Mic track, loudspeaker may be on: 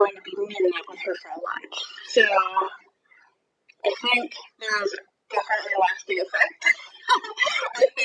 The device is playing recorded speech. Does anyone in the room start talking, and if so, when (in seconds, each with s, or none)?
none